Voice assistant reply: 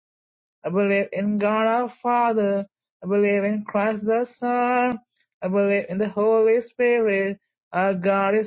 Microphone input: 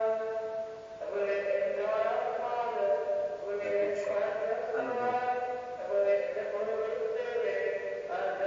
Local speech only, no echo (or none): the good shepherd another